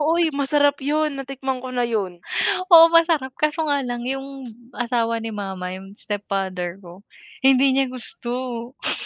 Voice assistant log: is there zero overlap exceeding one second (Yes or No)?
Yes